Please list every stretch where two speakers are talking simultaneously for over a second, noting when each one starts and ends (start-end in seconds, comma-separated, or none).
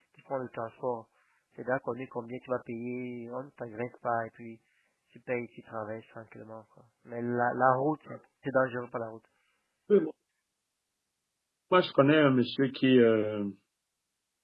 none